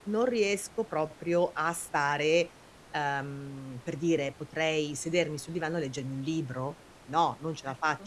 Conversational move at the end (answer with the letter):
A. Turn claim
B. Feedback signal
B